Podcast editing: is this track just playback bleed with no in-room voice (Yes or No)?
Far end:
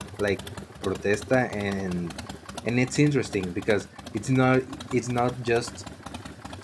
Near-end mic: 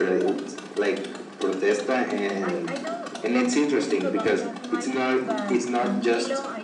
No